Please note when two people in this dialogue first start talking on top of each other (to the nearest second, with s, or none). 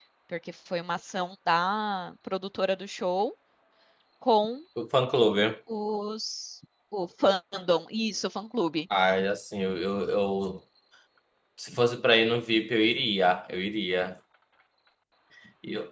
none